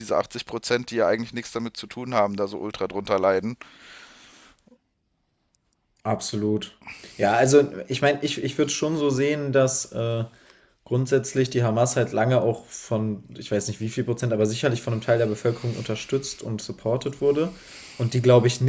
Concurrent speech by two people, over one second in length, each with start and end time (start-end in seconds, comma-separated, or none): none